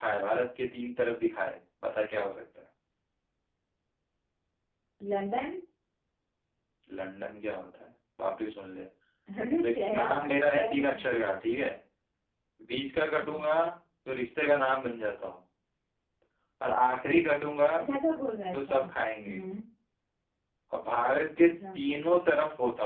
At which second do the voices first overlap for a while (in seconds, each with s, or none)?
9.6 s